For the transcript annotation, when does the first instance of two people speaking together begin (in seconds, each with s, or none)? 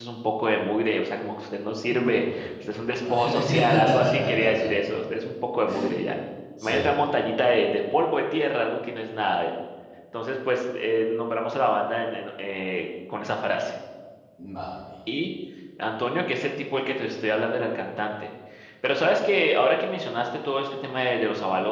1.9 s